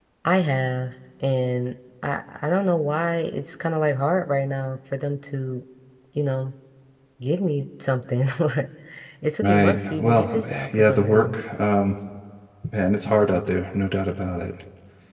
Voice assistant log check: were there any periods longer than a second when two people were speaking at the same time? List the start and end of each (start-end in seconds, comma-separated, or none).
9.4-11.4